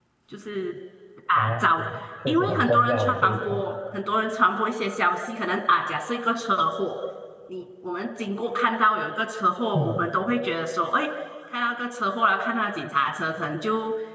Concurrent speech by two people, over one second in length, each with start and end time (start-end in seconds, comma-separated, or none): 2.3-3.6